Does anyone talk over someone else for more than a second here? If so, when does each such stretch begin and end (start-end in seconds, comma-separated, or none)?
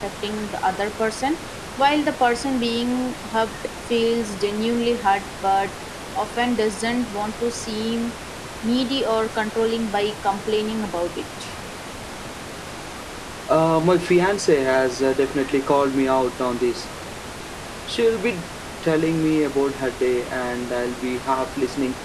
none